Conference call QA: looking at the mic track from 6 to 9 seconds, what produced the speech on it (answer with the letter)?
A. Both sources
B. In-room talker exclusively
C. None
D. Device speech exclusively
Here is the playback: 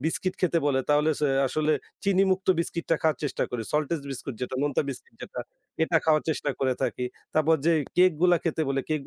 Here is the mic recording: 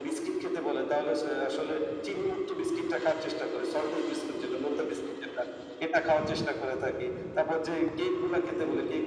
D